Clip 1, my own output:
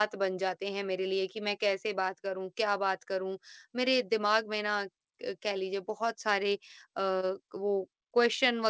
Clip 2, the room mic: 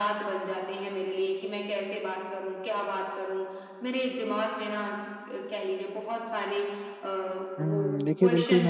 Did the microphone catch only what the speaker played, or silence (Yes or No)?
No